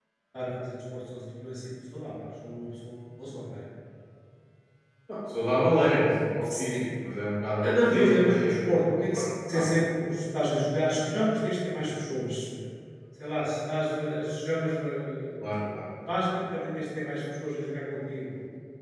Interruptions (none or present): present